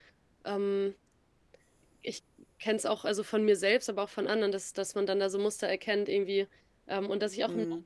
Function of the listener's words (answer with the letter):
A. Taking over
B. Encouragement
B